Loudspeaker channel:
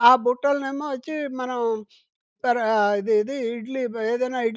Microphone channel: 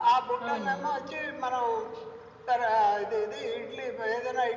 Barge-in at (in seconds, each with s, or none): 0.5 s